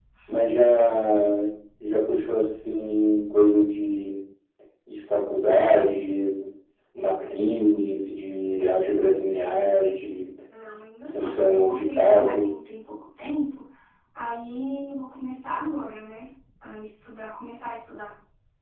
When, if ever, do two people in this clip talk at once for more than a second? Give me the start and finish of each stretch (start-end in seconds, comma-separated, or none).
11.1-12.5